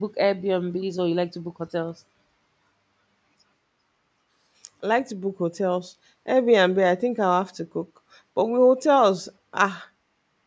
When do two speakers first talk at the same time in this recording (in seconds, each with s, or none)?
none